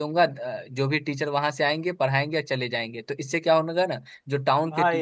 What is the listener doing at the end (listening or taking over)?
listening